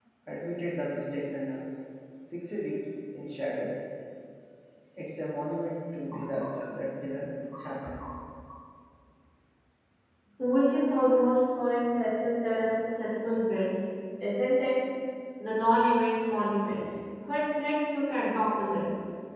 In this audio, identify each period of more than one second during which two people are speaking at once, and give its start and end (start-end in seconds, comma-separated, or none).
none